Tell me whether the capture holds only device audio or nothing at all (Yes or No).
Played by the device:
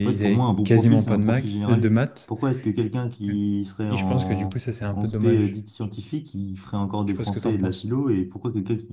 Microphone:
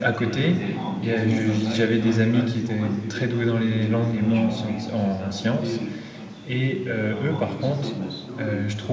No